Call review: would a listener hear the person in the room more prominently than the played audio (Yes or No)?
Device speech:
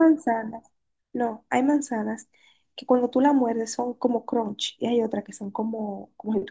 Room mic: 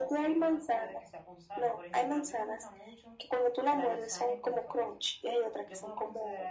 No